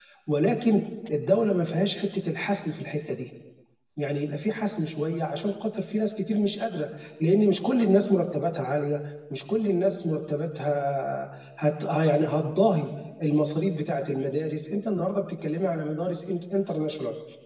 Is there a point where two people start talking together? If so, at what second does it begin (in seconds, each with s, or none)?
none